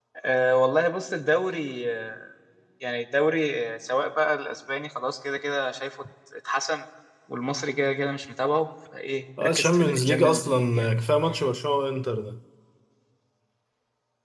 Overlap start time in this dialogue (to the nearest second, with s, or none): 9 s